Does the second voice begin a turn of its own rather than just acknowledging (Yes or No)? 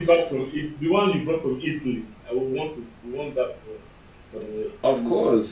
Yes